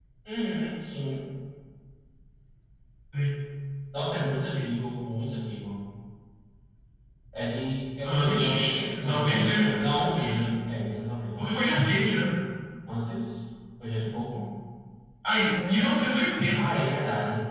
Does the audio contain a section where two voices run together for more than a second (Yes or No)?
Yes